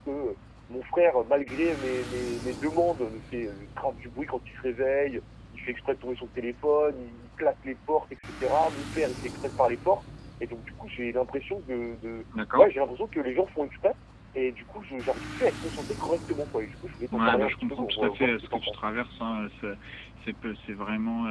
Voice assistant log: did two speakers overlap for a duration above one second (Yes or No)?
Yes